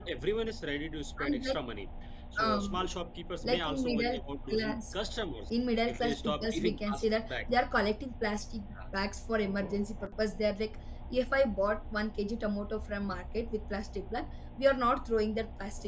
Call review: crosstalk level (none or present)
present